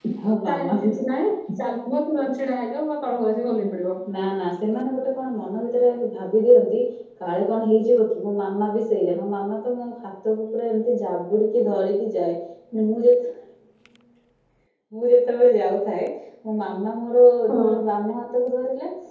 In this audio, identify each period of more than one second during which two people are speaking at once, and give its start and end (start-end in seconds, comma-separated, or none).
none